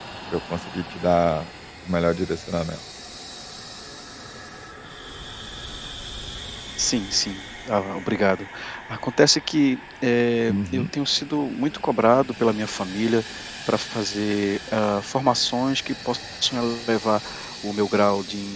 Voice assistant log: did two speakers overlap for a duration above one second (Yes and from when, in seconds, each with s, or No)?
No